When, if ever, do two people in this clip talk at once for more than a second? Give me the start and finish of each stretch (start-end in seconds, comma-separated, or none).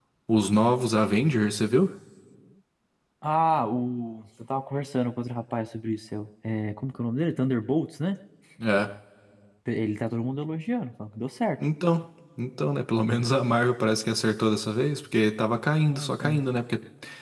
none